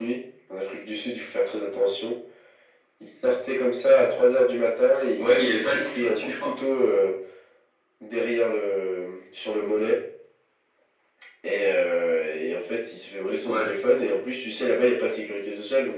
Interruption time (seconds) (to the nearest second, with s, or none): 5 s